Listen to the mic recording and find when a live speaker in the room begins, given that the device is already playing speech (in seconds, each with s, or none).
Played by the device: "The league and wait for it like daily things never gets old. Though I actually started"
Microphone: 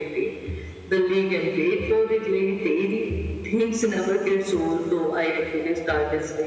none